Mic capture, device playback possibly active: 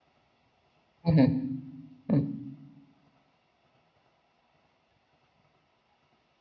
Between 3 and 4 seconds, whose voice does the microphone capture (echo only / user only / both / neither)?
neither